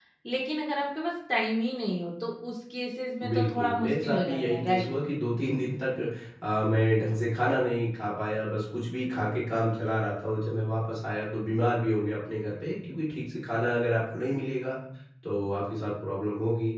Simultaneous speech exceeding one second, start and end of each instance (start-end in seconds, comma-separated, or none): 3.3-4.9